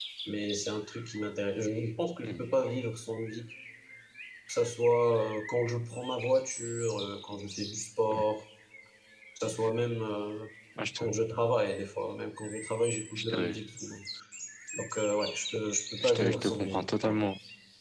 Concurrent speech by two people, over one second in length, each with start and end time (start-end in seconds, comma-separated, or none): 16.0-17.2